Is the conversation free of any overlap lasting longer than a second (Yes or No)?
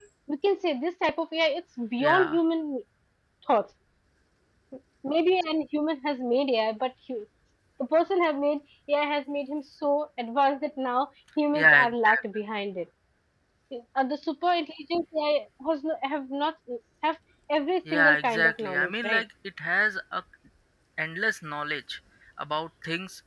No